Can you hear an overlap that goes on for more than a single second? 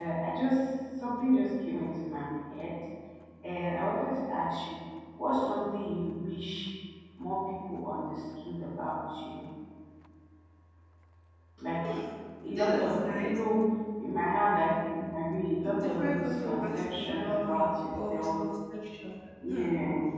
Yes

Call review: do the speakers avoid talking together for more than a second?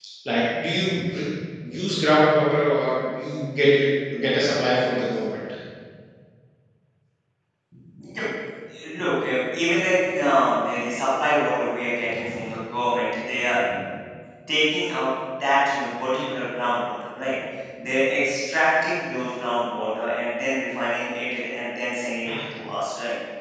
Yes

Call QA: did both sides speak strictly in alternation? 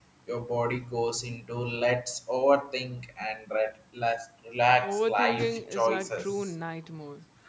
No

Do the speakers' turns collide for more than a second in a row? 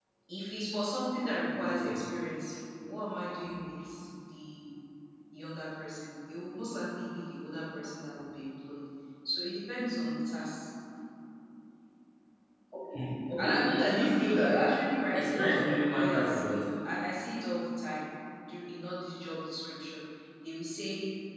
Yes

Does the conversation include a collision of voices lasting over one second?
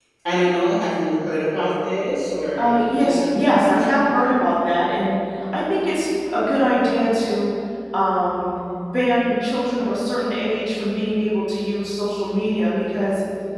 Yes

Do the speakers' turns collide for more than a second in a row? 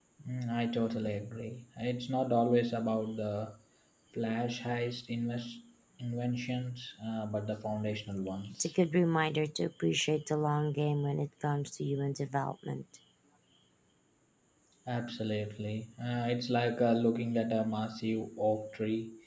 No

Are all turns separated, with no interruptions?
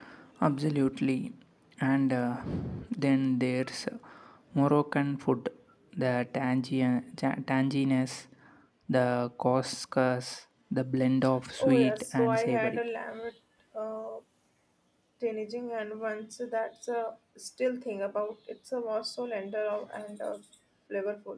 No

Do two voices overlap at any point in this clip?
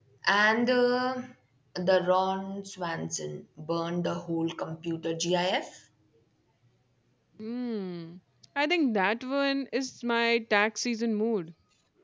No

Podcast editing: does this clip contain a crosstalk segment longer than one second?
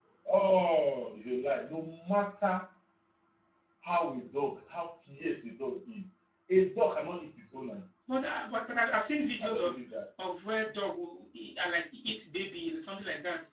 No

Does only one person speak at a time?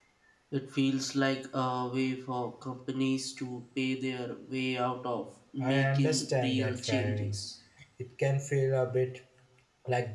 No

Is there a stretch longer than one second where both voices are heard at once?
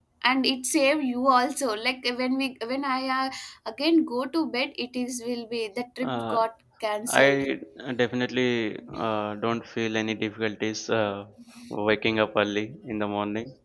No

